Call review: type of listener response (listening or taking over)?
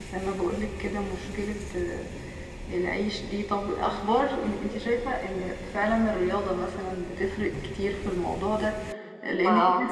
listening